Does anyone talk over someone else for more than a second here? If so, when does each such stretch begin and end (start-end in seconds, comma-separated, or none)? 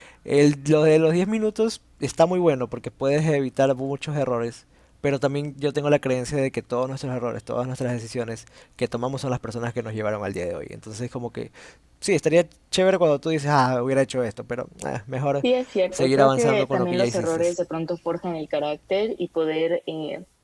15.9-17.4